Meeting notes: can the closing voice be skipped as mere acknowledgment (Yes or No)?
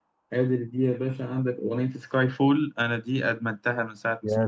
No